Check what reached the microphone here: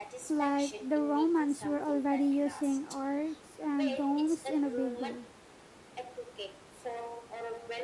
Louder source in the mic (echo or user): user